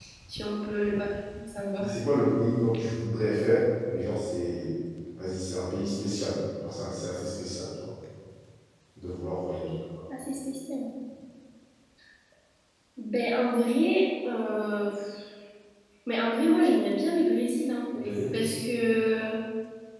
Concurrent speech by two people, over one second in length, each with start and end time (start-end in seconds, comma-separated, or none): none